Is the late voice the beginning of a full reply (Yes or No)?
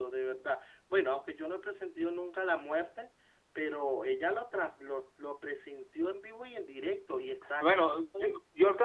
Yes